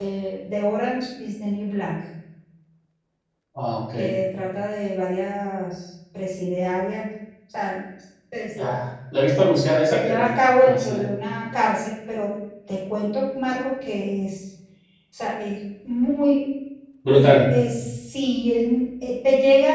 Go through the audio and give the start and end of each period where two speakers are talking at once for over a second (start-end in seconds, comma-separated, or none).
9.9-11.1